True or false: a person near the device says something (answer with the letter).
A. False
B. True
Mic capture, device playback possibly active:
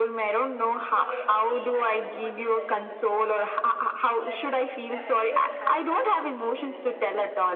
B